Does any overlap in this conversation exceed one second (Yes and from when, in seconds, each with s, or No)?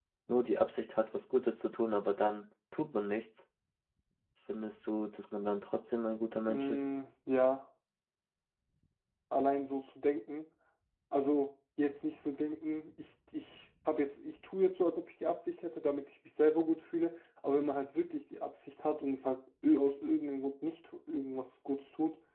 No